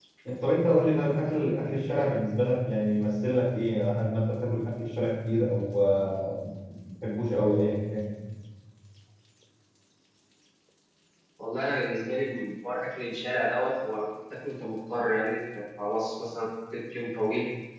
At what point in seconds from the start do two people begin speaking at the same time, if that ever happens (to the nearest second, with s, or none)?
none